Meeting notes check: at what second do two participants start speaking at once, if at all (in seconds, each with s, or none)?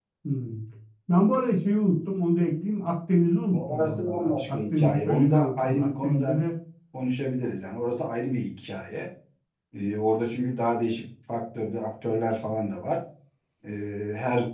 3.5 s